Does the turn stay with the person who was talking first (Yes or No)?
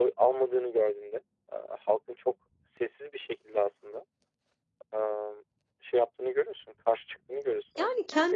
No